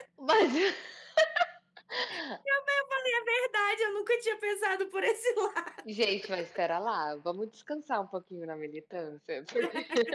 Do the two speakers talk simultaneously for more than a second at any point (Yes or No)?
No